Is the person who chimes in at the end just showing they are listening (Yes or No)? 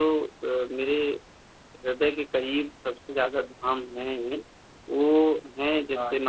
Yes